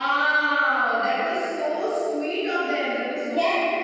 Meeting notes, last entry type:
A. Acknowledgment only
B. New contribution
B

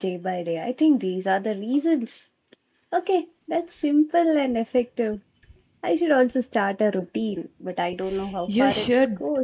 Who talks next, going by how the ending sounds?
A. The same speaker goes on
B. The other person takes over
B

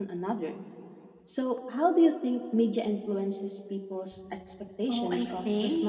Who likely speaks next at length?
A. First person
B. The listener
B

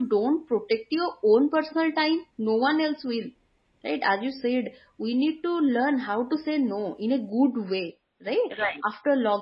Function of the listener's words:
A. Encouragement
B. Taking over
A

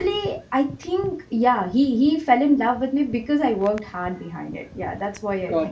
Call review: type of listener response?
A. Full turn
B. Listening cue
A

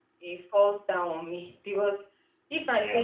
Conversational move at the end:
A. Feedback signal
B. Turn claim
A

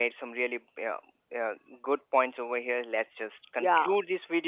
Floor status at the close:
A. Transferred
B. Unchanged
B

